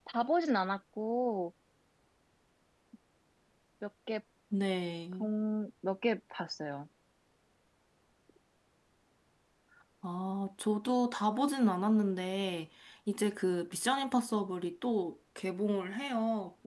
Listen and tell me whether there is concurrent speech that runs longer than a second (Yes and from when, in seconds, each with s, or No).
No